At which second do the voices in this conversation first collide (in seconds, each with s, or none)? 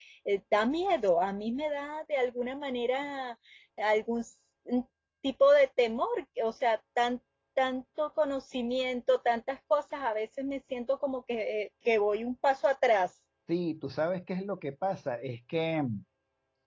none